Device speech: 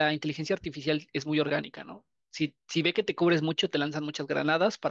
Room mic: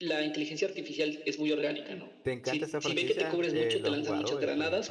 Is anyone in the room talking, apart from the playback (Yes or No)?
Yes